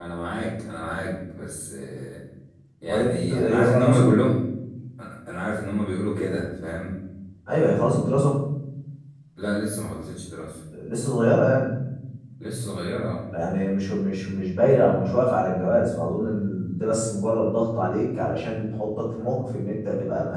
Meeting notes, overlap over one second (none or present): present